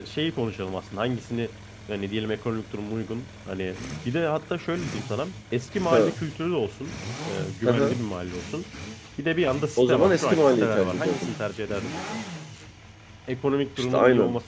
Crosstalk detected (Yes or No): Yes